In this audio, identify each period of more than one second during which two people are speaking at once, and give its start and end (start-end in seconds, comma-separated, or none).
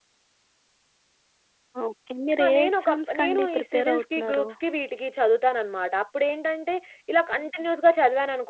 2.4-4.5